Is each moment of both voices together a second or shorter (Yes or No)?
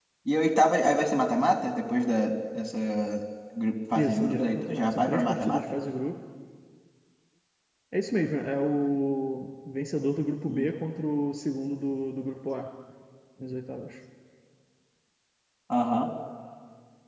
No